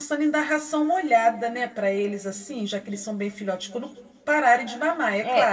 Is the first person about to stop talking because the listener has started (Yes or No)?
Yes